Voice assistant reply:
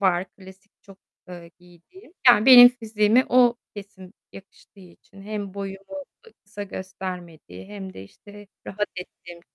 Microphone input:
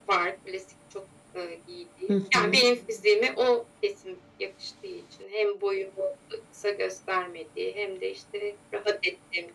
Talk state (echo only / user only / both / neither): both